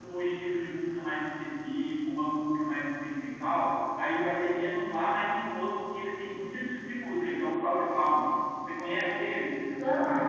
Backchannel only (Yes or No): No